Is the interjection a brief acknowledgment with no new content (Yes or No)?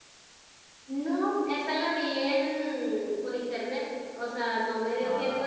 Yes